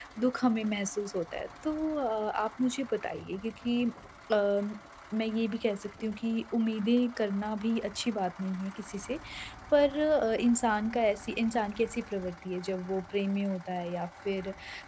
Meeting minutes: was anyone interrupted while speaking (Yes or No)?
No